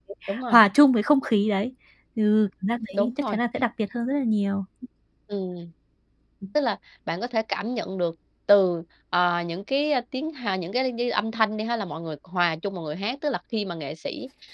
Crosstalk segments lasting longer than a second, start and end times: none

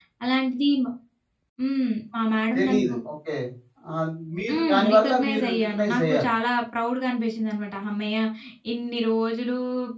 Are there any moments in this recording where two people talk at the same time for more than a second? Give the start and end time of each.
4.5-6.3

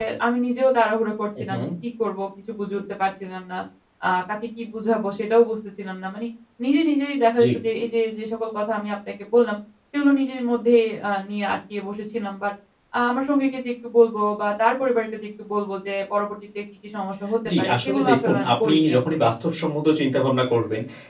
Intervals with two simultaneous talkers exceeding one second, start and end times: 17.5-19.3

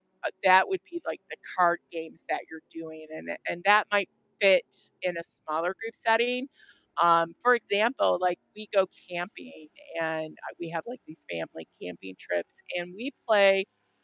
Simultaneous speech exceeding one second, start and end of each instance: none

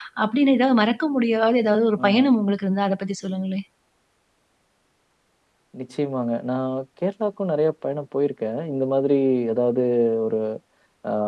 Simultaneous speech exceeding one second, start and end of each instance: none

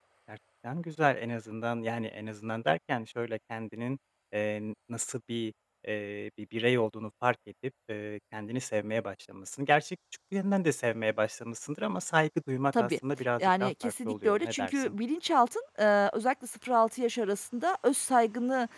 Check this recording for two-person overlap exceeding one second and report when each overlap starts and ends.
13.4-15.0

